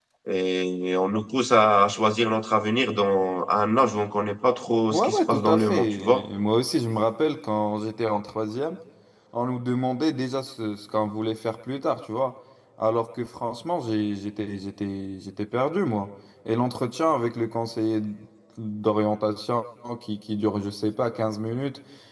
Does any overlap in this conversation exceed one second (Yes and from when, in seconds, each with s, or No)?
Yes, from 4.9 s